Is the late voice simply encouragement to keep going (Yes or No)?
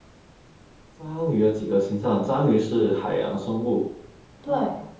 Yes